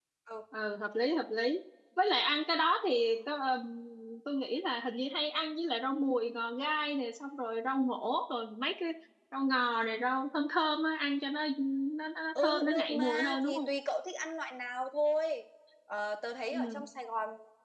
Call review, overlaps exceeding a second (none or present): present